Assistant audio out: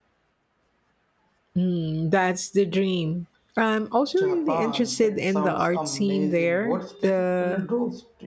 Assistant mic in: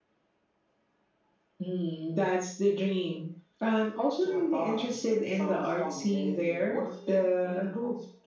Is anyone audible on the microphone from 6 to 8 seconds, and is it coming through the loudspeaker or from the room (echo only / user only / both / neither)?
echo only